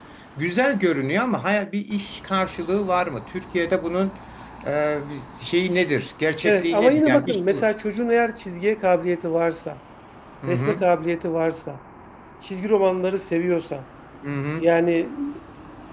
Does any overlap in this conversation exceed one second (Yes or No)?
Yes